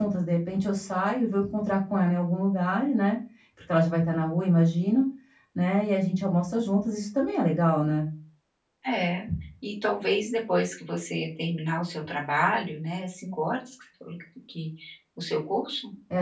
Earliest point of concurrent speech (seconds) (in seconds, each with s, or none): none